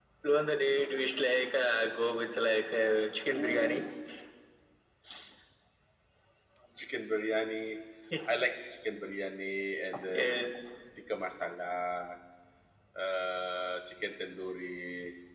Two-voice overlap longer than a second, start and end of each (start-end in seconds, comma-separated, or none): none